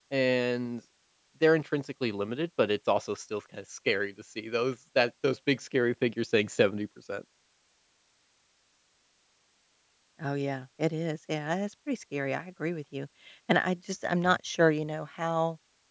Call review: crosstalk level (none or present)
none